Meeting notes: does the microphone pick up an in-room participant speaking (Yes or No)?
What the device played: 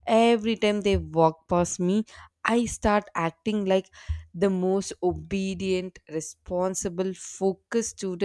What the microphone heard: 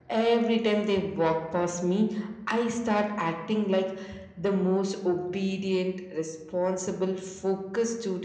No